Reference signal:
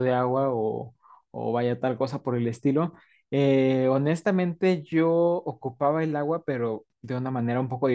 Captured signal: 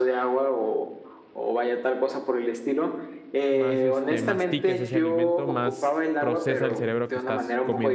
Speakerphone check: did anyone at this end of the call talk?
Yes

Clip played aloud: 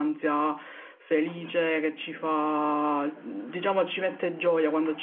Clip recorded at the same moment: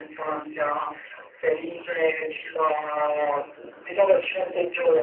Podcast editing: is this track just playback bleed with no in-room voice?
Yes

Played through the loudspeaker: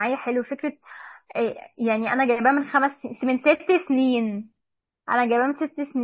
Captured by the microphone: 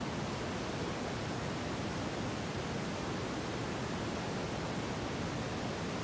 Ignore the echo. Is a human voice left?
No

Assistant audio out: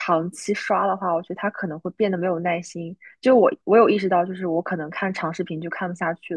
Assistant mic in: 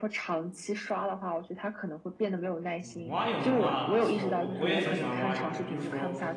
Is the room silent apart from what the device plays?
No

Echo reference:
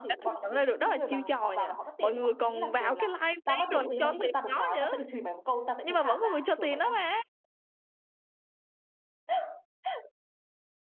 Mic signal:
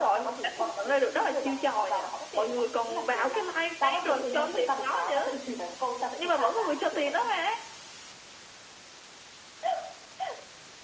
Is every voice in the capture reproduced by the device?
Yes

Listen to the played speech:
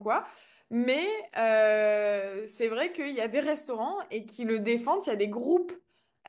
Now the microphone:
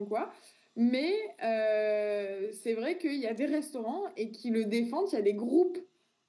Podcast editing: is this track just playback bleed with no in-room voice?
Yes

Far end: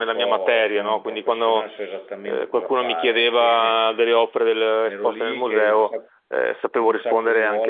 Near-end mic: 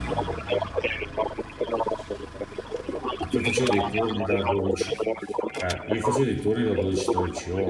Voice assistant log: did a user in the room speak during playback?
Yes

